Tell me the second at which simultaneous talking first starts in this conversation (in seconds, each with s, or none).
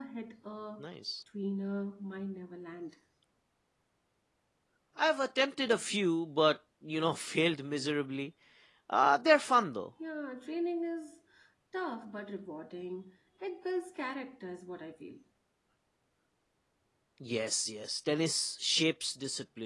none